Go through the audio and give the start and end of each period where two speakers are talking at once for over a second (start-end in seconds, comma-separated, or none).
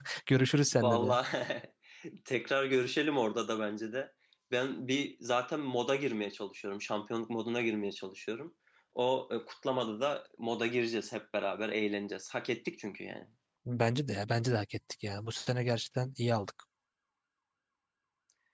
none